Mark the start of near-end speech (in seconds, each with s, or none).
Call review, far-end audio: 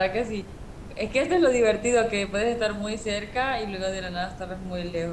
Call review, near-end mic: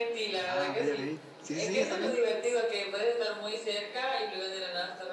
0.4 s